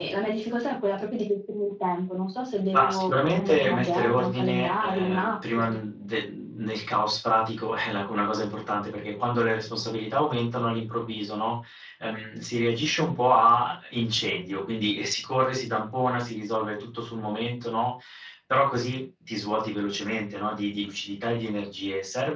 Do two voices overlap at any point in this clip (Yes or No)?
Yes